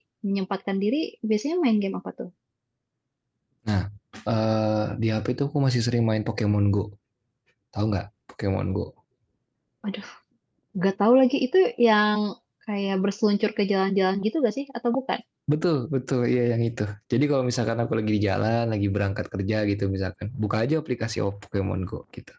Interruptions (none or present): none